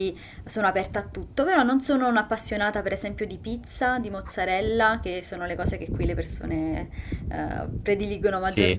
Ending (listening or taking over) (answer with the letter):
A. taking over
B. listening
B